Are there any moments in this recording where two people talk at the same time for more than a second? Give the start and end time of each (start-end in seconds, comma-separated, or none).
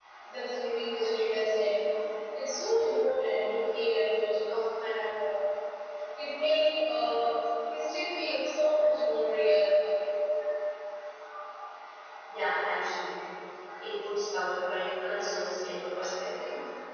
none